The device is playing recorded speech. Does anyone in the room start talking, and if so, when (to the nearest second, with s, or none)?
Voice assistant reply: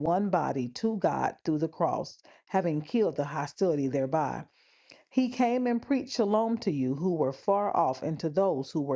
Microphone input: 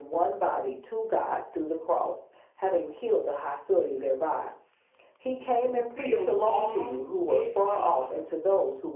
6 s